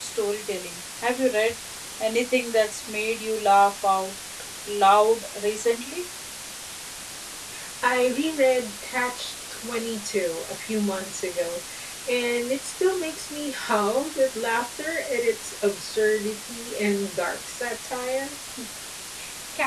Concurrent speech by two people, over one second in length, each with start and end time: none

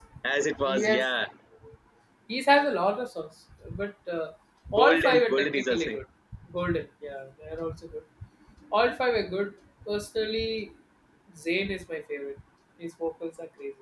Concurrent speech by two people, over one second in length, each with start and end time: 4.7-6.0

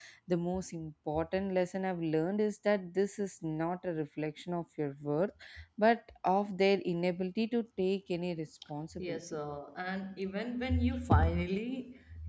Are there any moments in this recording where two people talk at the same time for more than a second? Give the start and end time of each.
none

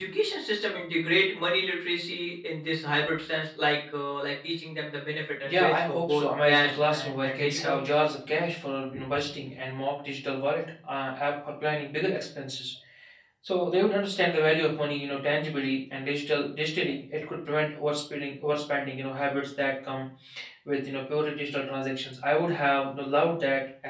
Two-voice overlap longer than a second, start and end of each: 5.5-7.8

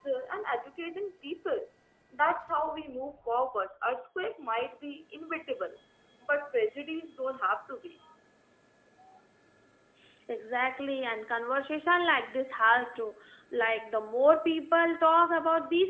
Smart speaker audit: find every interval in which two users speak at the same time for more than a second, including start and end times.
none

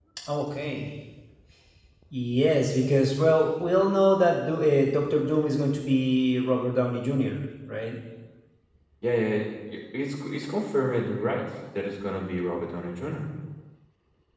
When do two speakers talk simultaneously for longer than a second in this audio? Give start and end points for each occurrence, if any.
none

